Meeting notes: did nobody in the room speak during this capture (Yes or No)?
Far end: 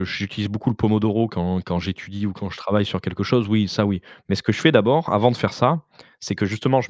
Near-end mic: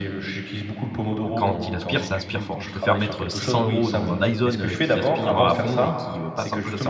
No